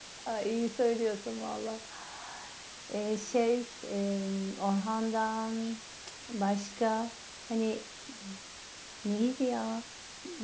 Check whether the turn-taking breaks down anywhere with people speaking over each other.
No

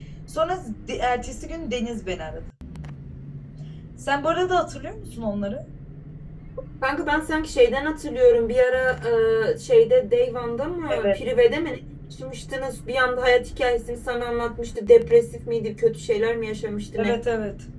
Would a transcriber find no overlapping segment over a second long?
Yes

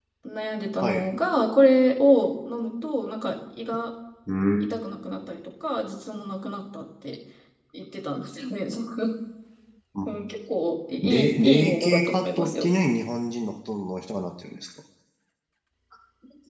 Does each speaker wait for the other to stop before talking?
No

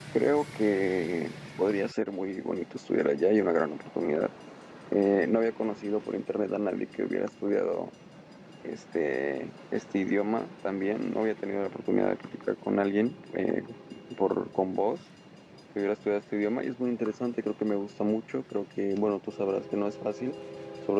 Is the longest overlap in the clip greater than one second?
No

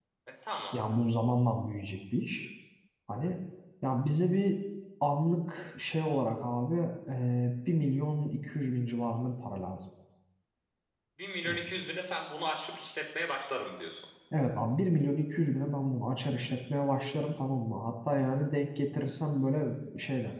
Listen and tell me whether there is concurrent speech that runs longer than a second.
No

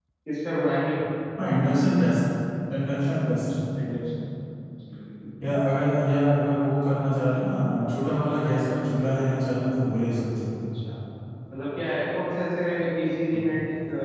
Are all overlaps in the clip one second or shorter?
Yes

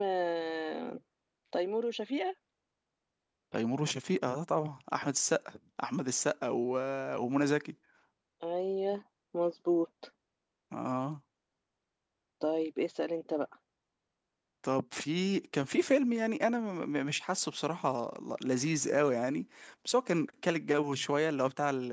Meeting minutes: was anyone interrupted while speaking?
No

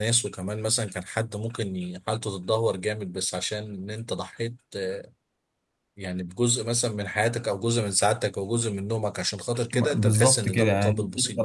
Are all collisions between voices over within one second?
No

